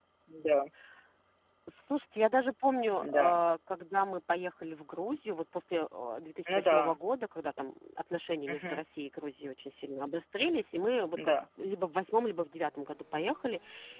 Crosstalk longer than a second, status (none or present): none